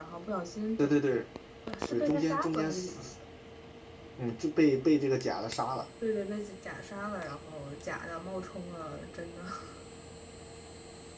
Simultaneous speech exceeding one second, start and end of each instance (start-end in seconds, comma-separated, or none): 1.9-3.1